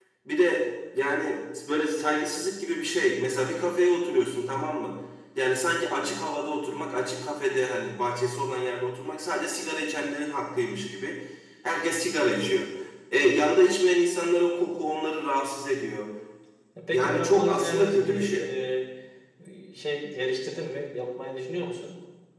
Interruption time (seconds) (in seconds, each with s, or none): 16.9 s